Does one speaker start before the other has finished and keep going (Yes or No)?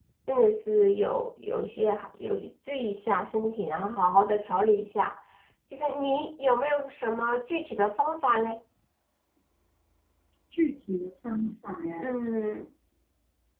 No